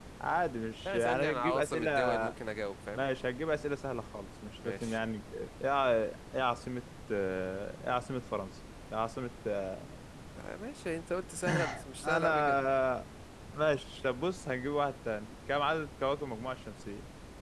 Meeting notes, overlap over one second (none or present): present